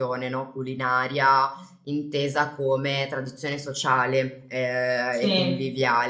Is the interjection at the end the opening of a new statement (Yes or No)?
No